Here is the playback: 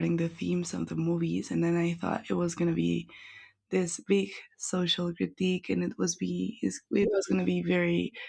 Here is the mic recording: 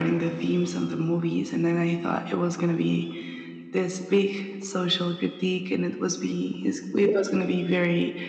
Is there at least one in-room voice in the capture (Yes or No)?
No